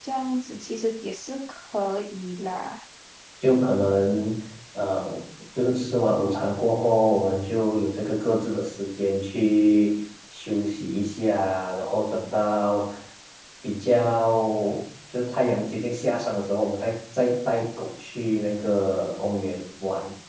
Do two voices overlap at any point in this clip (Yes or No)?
No